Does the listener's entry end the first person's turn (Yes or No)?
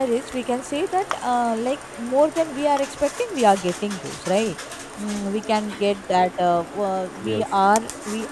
No